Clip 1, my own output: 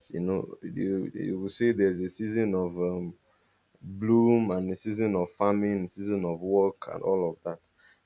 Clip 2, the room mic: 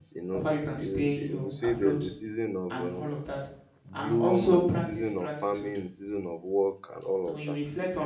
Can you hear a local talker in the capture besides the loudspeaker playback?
Yes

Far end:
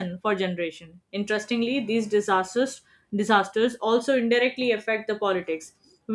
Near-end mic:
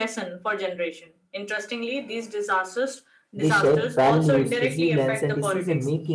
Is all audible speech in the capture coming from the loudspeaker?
No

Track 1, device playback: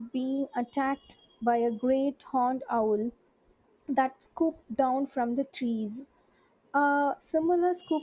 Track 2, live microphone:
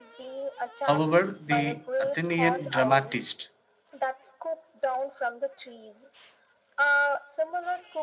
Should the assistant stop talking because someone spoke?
Yes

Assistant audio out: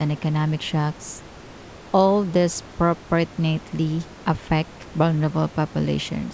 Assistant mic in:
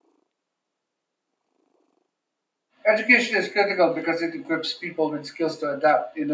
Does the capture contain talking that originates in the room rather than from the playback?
Yes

